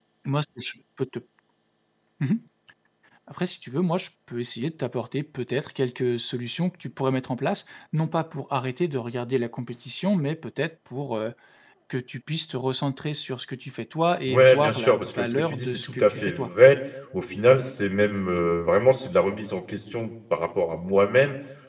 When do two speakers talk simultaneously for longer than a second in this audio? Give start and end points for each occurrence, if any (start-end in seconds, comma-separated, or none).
14.3-16.5